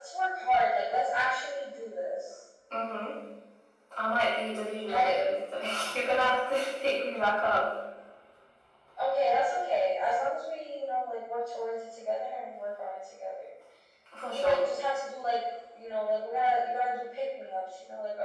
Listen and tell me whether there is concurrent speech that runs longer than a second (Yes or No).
No